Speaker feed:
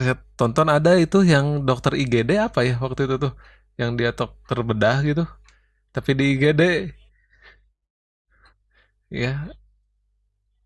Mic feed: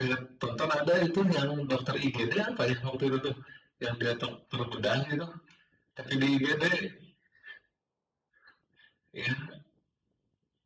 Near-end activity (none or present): none